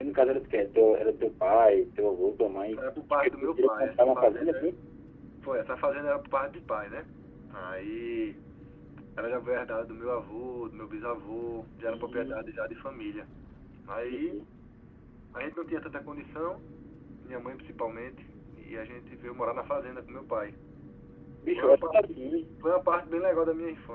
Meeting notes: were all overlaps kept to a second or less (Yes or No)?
No